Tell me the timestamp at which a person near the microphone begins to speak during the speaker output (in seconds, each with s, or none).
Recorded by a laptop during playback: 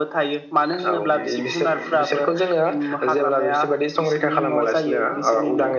none